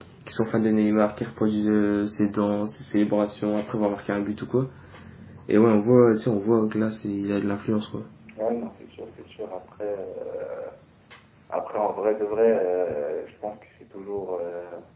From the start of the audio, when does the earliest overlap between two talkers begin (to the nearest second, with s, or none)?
none